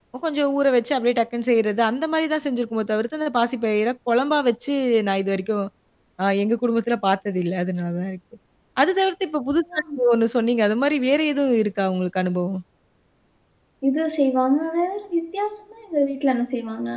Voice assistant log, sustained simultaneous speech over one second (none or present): none